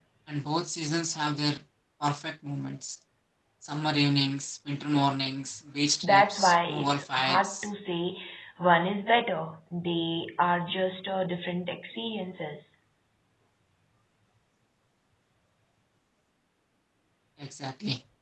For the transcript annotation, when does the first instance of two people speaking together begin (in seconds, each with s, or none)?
6.0 s